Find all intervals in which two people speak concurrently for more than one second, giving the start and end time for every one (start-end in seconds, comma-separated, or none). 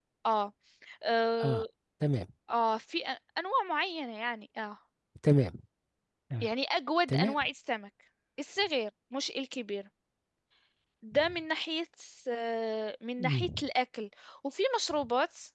none